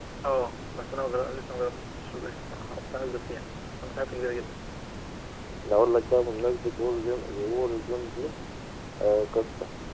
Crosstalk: none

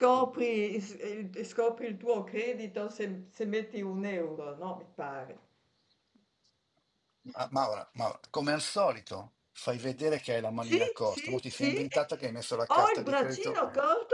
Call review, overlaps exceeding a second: present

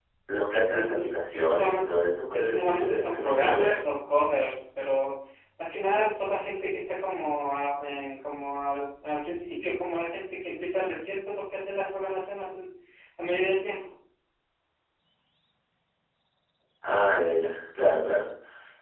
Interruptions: present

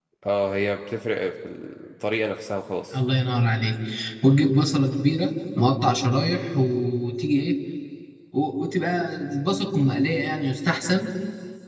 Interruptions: none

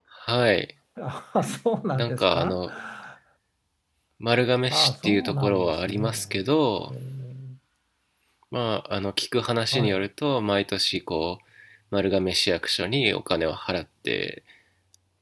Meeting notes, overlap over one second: present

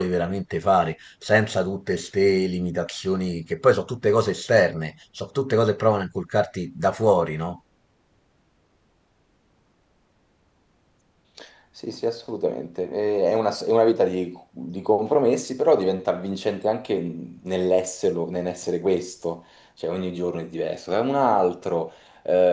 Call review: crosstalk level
none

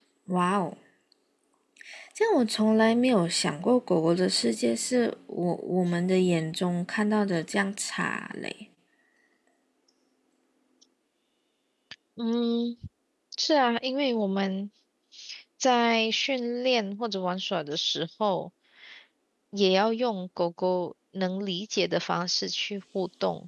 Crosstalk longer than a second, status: none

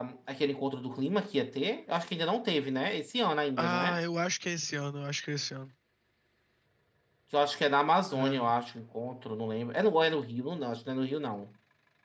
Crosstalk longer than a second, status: none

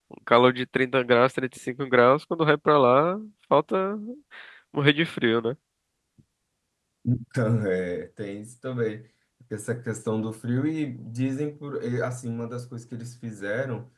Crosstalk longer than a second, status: none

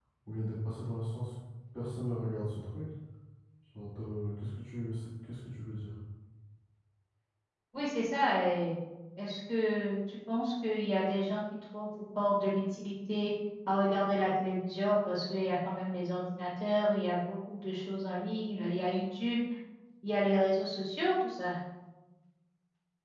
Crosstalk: none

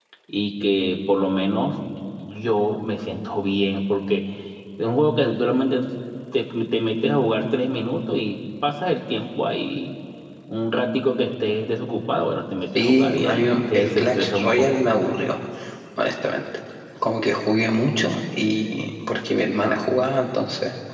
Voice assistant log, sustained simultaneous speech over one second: present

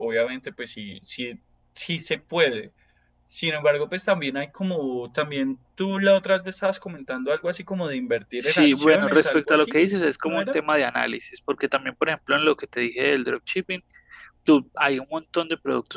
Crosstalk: present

